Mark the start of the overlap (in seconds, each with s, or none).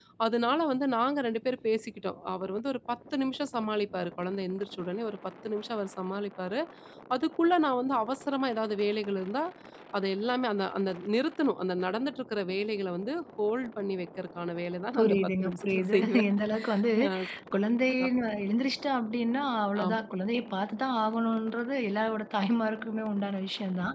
14.9 s